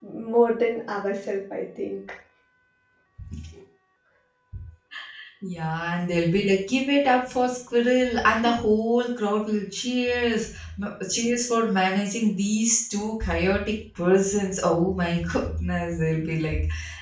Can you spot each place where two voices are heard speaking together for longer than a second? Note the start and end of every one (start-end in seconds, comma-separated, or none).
none